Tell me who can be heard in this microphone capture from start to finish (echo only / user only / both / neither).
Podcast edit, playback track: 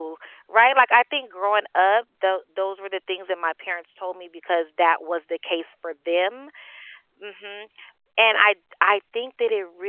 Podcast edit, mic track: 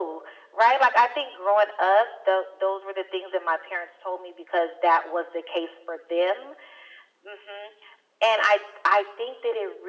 echo only